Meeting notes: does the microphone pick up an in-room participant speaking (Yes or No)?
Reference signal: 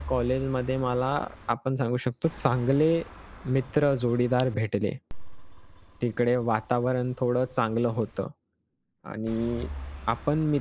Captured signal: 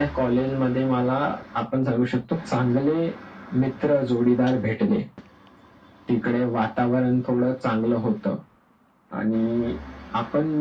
No